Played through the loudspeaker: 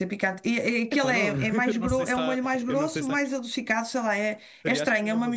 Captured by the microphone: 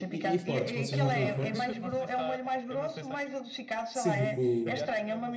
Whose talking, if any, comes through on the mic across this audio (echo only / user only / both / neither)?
both